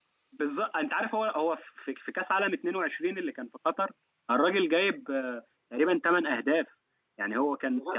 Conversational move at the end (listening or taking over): listening